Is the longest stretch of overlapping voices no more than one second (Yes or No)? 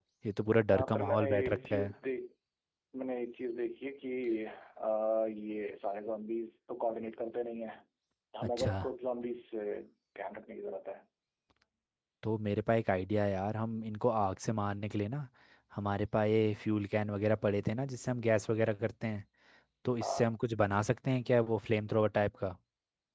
No